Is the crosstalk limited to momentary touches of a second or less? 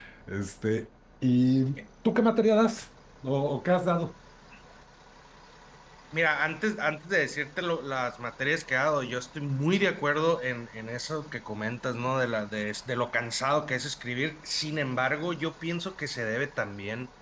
Yes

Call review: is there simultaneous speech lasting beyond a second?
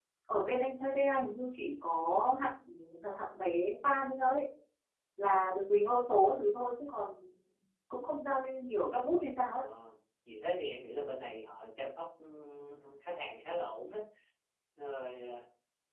No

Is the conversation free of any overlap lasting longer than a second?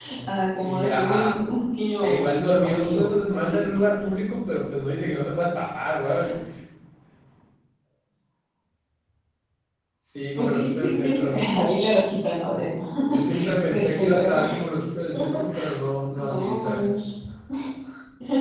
No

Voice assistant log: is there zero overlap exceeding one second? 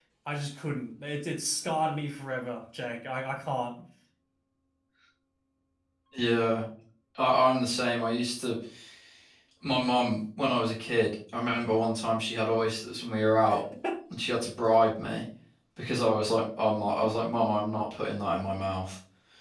Yes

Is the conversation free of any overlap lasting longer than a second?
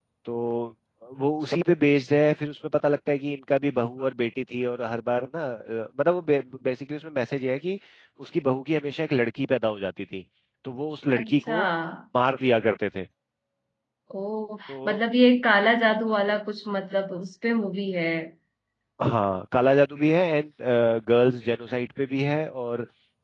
Yes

